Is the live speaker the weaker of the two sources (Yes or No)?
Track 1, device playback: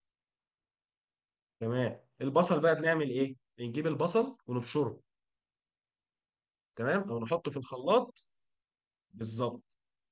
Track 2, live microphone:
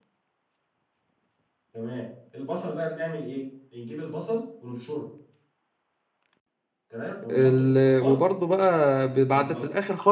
No